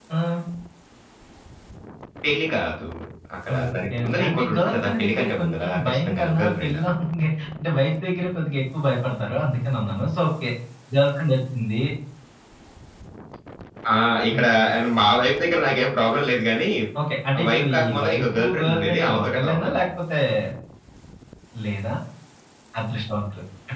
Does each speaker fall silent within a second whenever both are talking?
No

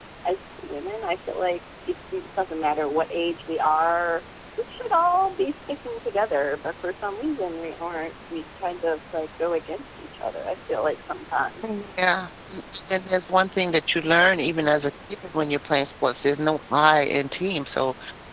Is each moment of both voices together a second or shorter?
Yes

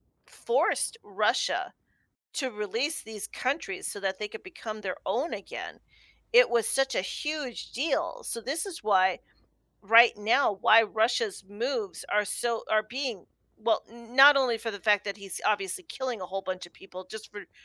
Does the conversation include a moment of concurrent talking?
No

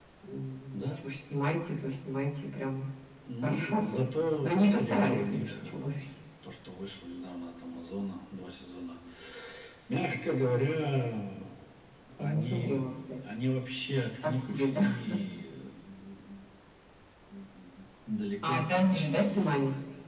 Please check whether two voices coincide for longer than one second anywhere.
Yes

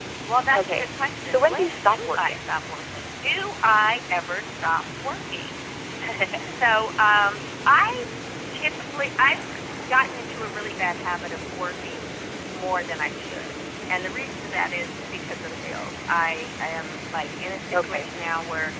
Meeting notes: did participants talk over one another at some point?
Yes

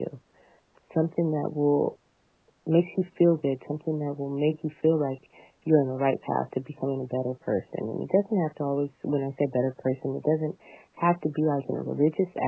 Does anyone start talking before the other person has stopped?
No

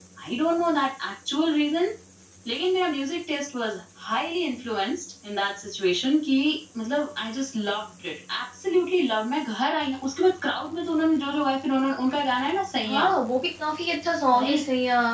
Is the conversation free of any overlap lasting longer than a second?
Yes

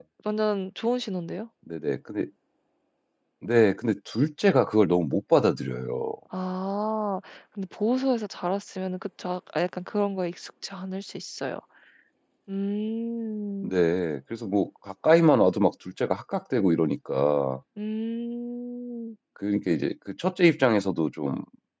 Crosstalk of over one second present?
No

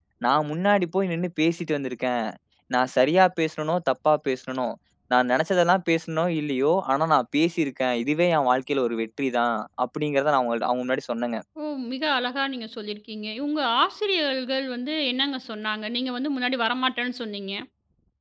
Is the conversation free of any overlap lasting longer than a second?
Yes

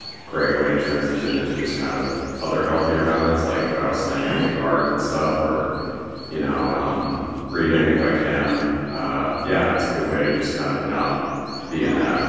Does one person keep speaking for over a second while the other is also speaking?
No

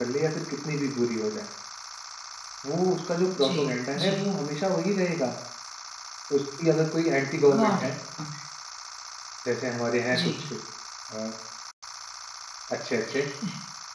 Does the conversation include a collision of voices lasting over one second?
No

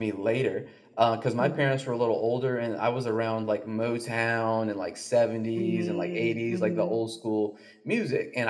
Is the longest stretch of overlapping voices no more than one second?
No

